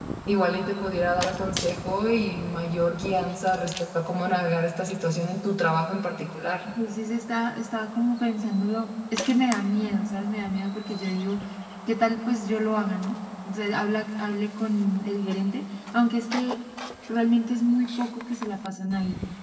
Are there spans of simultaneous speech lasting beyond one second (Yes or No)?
No